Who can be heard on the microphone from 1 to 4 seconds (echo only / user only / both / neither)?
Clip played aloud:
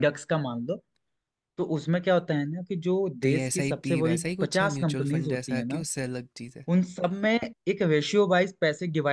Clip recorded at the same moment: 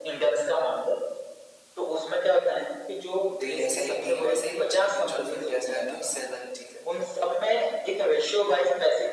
echo only